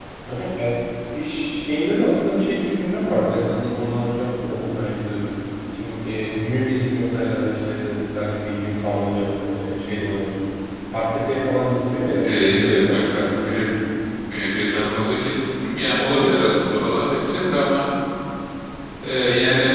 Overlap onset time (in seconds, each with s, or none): 12.2 s